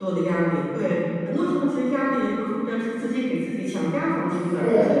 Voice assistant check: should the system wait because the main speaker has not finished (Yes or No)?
Yes